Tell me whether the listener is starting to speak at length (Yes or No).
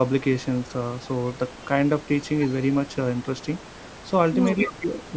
No